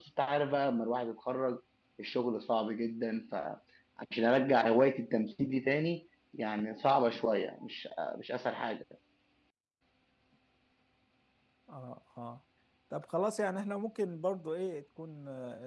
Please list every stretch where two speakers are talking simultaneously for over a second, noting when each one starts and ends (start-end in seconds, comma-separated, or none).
none